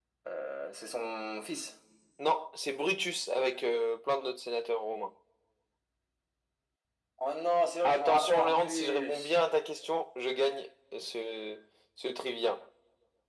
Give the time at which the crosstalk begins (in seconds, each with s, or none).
7.8 s